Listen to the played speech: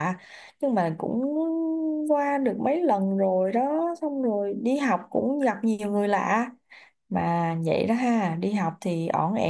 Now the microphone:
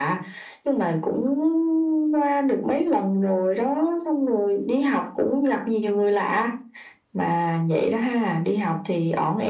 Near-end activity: none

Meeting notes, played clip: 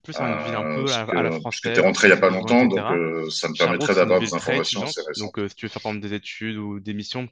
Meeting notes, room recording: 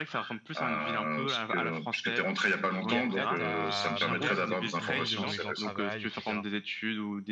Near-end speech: present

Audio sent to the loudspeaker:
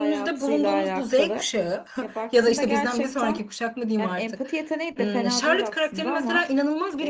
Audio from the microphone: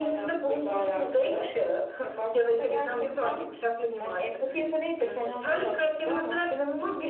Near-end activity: none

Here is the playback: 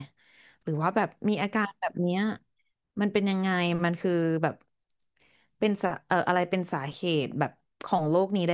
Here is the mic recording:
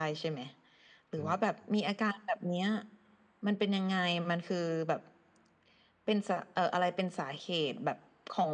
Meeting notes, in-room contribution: present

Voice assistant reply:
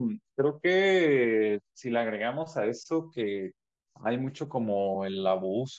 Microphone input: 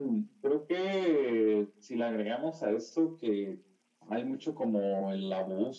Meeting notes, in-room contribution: none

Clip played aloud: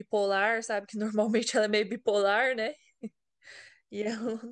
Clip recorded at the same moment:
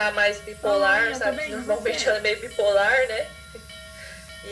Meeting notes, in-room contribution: present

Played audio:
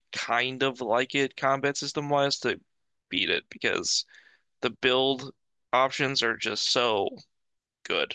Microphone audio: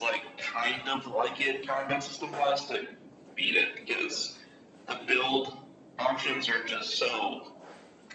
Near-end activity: none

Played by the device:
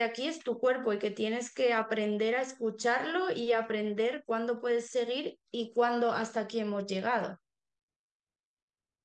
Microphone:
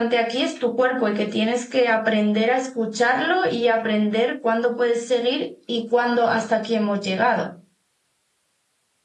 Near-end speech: none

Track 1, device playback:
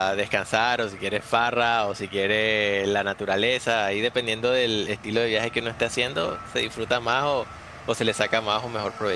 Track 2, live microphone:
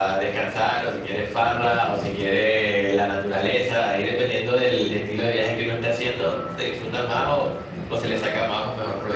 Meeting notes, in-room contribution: none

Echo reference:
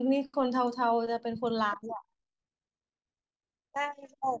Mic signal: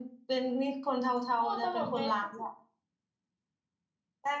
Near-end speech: present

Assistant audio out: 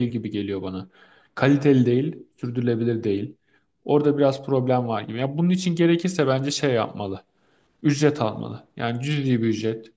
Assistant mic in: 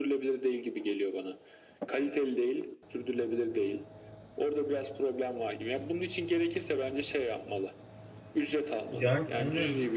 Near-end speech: present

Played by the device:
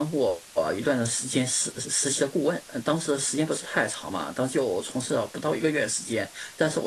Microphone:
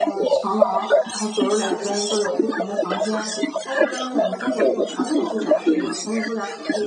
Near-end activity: present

